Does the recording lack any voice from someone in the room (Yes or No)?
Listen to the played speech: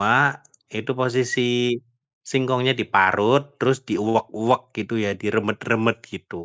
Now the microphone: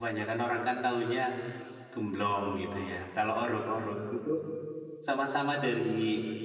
No